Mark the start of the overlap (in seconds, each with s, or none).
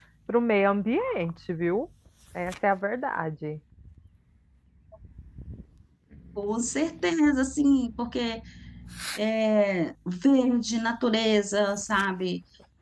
none